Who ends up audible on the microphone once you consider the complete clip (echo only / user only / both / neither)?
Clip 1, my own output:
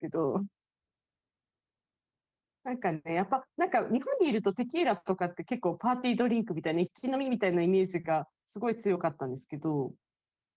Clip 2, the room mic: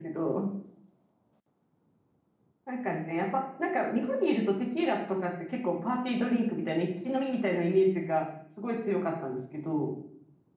echo only